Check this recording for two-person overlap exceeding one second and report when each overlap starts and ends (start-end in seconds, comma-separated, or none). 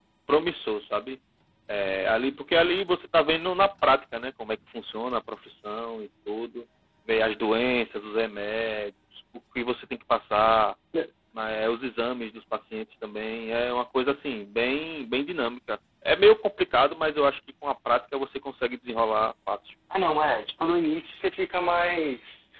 none